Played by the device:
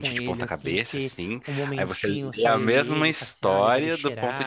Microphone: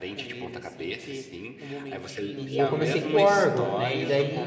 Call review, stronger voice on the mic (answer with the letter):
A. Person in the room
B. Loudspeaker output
A